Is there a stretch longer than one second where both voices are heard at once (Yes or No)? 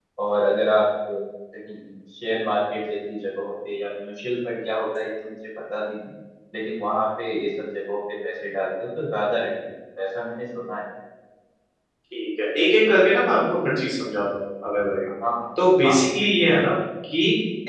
No